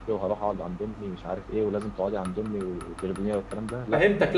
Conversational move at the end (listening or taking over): taking over